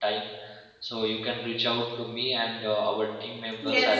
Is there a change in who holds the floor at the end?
No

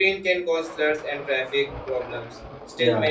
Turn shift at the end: No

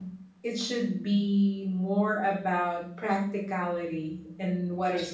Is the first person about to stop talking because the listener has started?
No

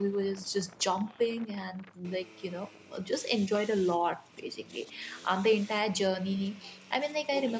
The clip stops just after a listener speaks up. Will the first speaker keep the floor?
No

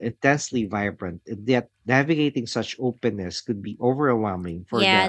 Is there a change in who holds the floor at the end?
Yes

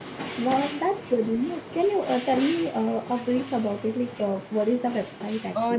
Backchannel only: No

